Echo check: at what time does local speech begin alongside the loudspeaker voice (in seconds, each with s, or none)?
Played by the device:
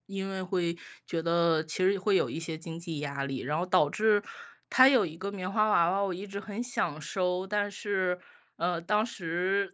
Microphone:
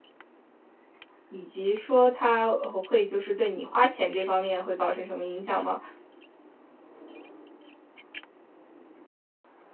1.3 s